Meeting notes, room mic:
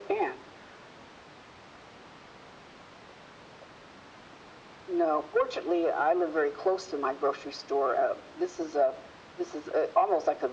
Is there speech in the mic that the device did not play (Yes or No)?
No